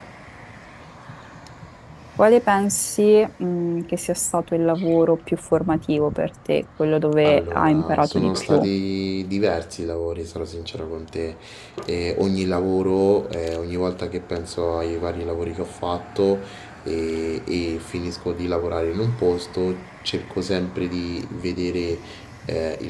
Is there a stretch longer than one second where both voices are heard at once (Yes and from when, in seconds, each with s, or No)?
Yes, from 7.2 s